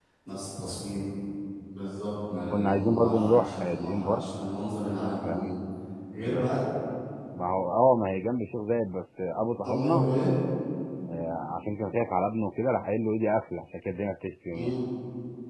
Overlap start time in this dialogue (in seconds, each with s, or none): 2.5 s